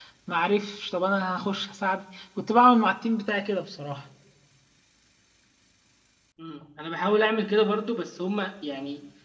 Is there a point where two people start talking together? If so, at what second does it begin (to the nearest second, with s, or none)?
none